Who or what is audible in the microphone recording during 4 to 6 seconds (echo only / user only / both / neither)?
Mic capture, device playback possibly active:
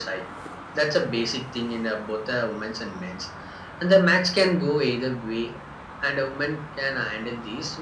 echo only